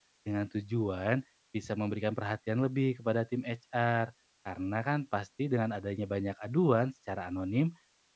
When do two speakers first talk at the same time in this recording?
none

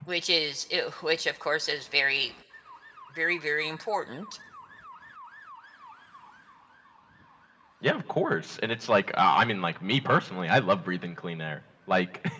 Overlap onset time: none

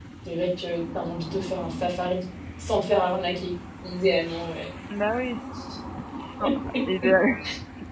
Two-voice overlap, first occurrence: none

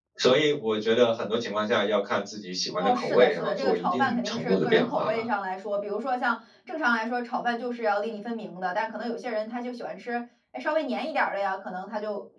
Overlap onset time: 2.8 s

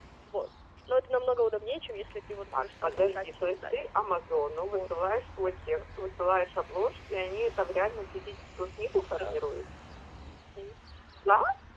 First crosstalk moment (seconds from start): 2.5 s

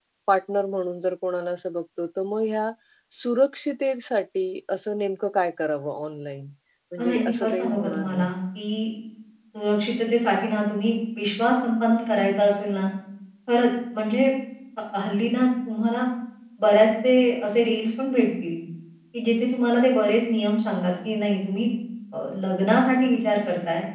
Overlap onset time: 7.0 s

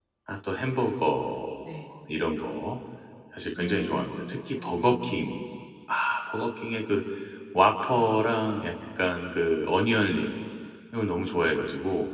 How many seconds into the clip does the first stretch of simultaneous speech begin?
3.6 s

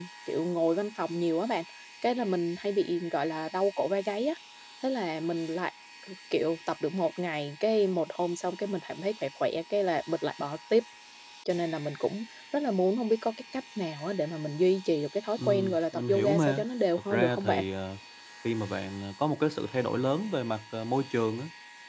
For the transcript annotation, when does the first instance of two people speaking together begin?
15.4 s

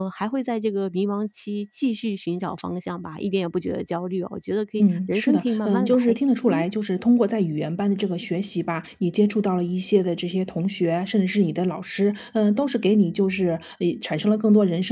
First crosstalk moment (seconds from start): 4.8 s

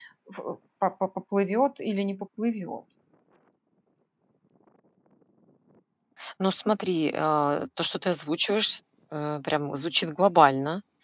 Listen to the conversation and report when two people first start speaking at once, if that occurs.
none

